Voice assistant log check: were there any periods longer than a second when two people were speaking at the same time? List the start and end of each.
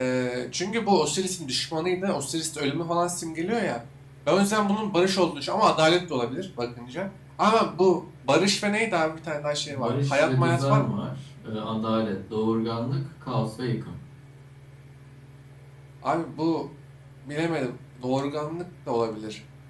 9.7-11.0

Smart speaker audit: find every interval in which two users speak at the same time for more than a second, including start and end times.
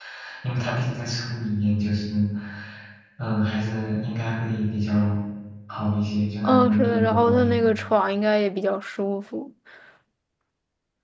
6.4-7.7

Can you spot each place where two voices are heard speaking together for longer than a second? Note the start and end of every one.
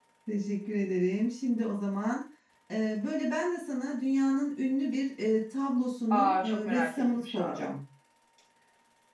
6.1-7.7

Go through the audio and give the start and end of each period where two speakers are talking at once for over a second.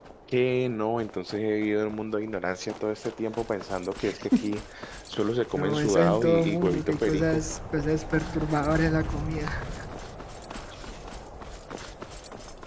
5.6-7.4

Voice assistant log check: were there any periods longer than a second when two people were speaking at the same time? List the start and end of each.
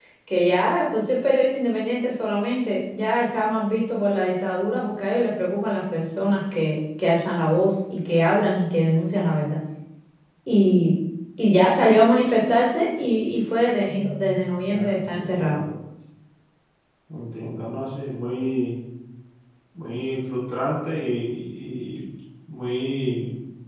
13.9-15.6

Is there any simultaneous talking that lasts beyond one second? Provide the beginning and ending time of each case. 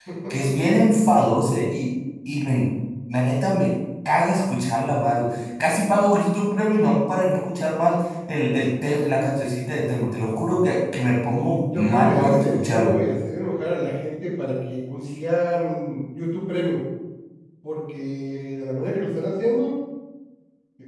11.8-13.0

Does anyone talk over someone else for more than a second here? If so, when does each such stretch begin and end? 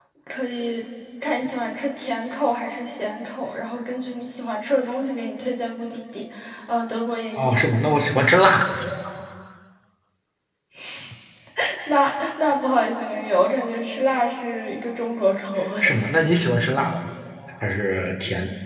none

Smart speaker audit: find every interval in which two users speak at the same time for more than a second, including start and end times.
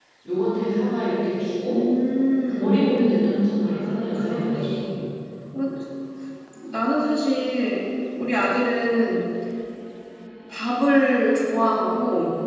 3.6-4.9

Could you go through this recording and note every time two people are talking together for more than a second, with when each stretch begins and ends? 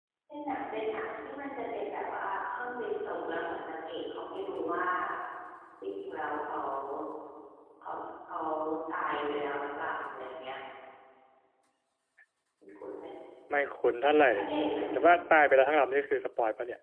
none

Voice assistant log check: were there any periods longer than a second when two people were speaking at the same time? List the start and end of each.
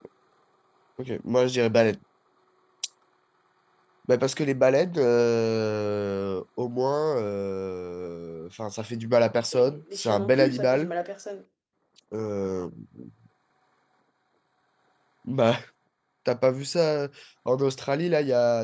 9.5-10.9

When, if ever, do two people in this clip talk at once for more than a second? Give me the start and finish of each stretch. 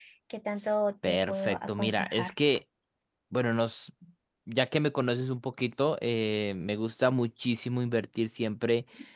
1.0-2.3

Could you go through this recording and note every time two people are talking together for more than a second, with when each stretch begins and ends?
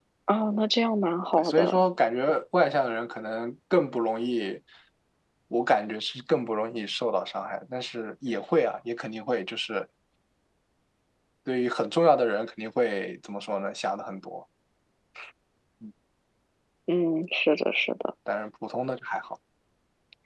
none

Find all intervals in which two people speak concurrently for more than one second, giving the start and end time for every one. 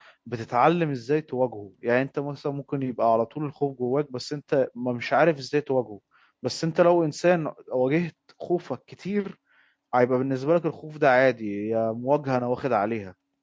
none

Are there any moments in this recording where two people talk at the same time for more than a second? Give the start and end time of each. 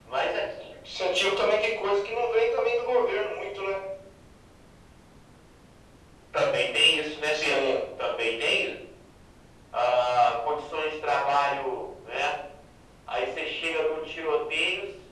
none

